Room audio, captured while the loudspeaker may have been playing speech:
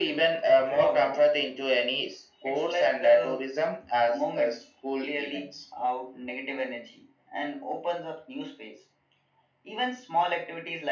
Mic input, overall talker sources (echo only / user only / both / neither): echo only